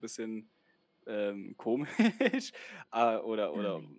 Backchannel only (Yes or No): Yes